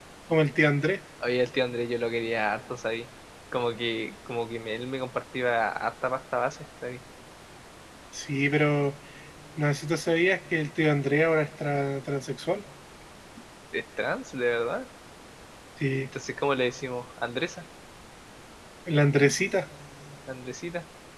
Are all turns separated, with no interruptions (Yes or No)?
Yes